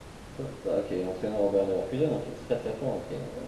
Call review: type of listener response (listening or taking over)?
taking over